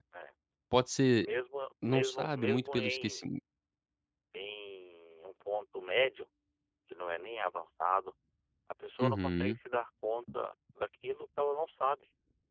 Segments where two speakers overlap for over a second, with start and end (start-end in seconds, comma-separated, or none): 1.9-3.2